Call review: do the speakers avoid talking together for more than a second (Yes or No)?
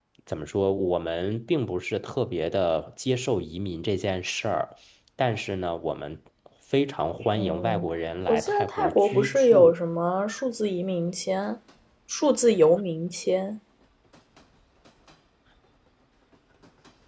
No